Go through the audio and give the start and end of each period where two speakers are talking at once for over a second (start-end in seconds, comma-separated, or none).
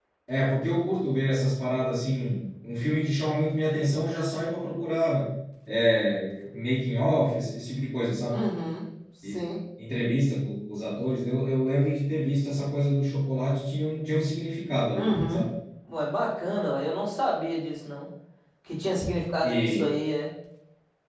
none